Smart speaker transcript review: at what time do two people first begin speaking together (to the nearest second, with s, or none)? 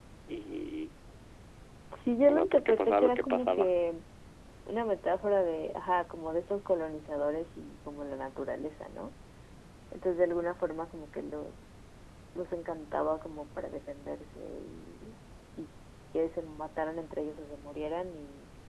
2 s